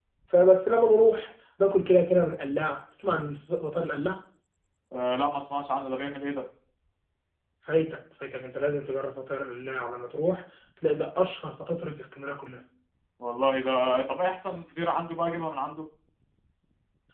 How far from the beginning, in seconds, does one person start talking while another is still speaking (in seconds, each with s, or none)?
none